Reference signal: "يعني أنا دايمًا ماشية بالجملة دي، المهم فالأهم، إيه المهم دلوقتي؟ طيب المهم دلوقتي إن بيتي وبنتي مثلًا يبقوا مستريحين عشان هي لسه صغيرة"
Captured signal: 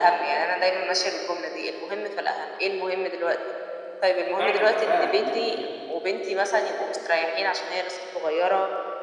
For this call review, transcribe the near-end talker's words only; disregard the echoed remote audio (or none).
فعلًا كفاية إن أنتِ